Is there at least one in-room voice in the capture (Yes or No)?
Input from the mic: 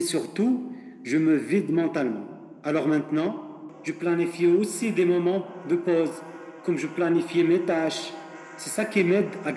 No